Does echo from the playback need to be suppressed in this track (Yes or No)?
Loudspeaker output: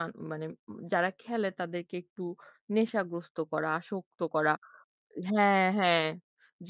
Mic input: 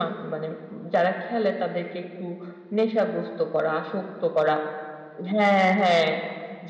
Yes